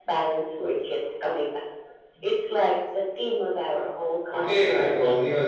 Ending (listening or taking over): taking over